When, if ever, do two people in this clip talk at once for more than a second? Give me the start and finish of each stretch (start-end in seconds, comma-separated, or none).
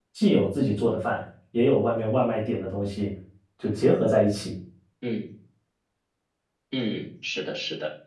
none